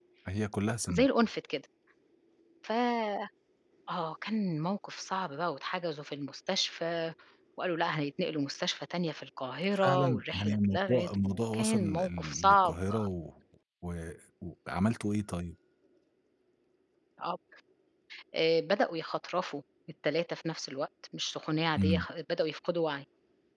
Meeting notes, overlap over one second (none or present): present